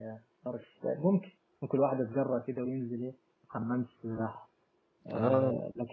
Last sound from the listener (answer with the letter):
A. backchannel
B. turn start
A